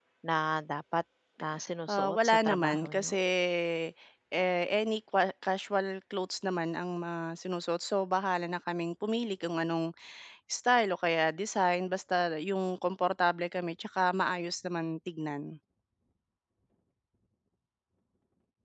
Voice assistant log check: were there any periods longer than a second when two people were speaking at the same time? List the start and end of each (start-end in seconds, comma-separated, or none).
1.9-3.1